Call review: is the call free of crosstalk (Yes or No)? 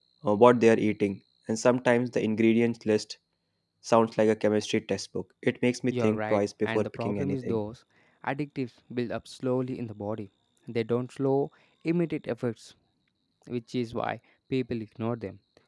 No